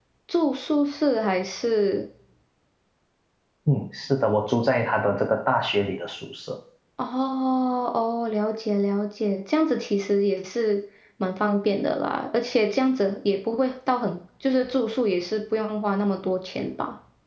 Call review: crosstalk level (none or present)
none